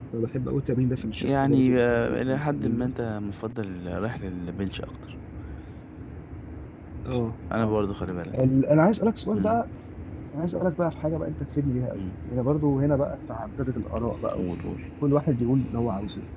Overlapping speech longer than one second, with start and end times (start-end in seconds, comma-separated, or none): 1.2-2.9